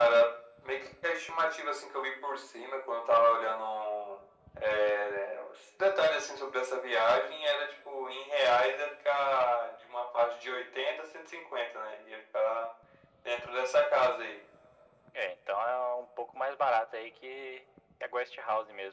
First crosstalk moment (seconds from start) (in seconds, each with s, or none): none